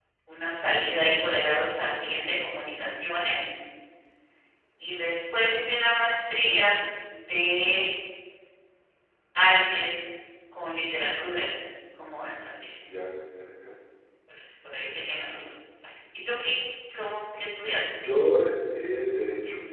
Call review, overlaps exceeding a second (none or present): none